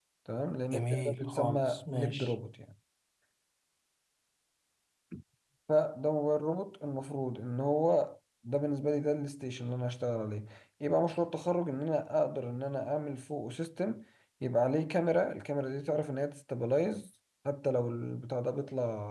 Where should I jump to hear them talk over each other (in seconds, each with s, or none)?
0.7 s